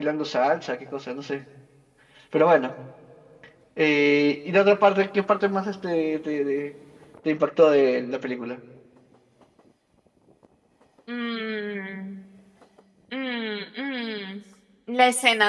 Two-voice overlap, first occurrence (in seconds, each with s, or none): none